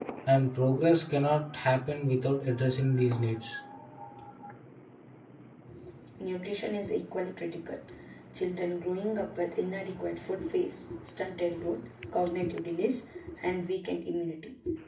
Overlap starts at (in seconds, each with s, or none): none